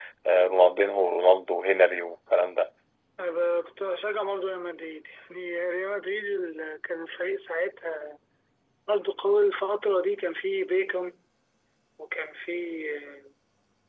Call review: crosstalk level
none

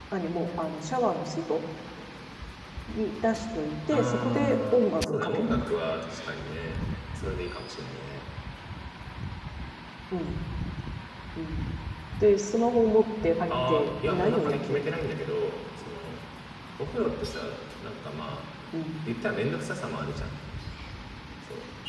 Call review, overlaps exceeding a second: present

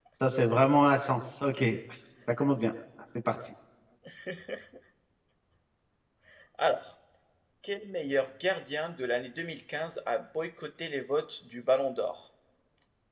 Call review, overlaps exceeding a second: none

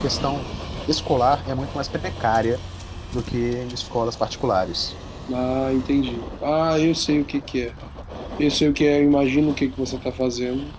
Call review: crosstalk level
none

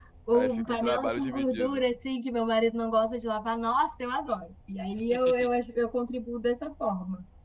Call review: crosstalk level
present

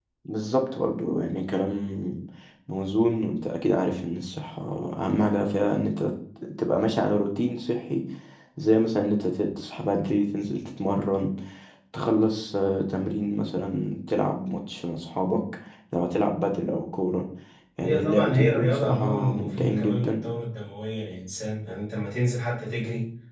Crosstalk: present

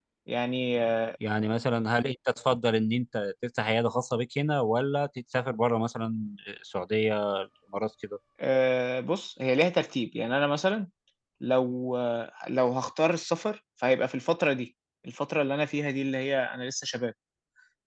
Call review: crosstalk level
none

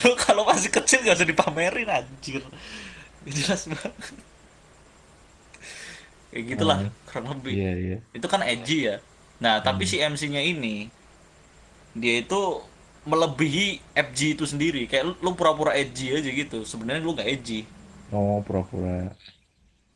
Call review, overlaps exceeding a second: none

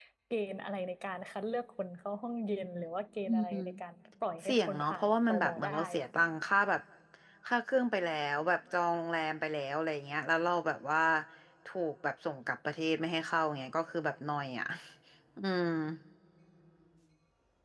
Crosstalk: present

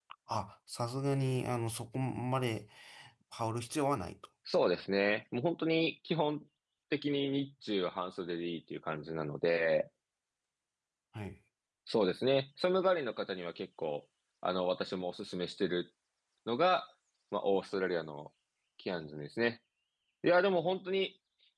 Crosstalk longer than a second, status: none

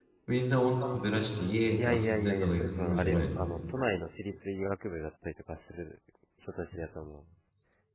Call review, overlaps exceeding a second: present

